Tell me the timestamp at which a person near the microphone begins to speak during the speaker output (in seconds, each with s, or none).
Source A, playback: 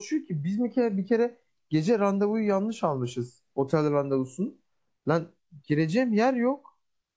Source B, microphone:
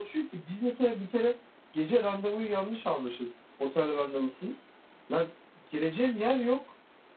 none